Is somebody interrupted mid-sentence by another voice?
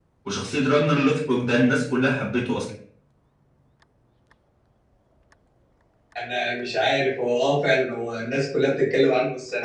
No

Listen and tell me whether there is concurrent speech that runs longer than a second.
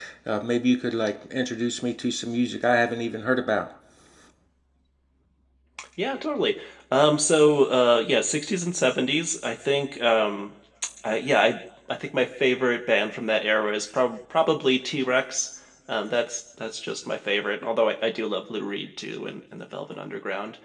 No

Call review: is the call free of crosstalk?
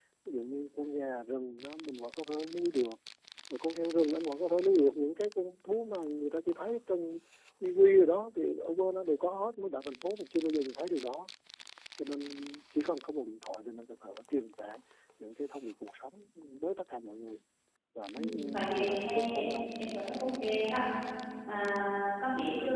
No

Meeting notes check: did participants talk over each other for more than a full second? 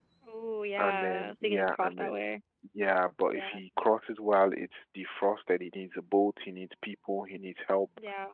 Yes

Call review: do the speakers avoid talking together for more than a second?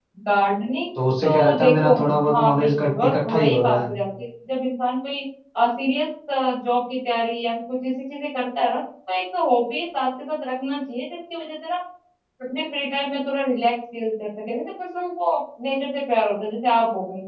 No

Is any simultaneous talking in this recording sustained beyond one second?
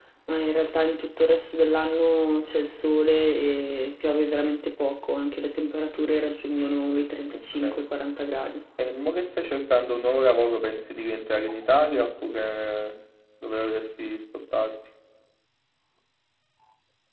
No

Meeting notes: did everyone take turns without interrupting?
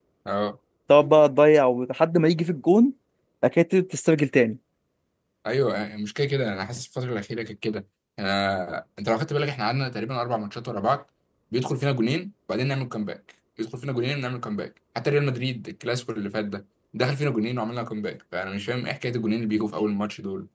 Yes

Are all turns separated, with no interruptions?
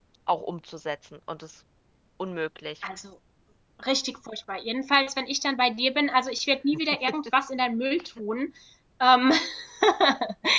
Yes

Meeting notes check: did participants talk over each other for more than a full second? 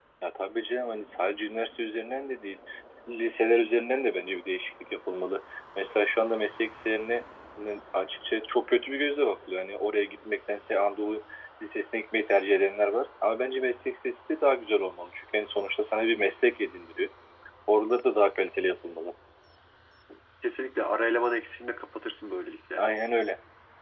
No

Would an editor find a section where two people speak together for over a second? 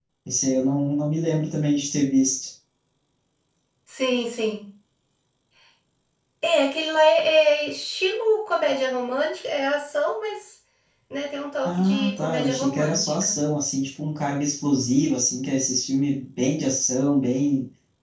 Yes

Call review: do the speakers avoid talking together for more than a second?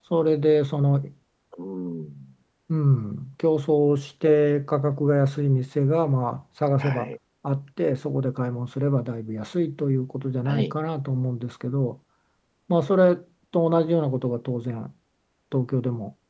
Yes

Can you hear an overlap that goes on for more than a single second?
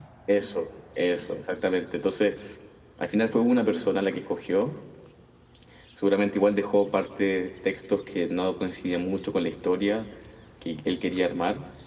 No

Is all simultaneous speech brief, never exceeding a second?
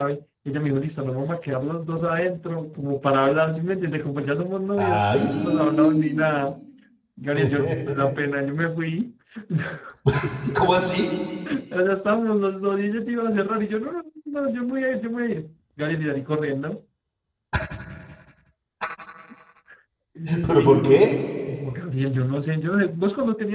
No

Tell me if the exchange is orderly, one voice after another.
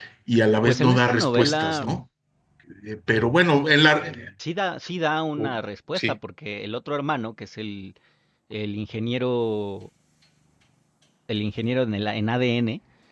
No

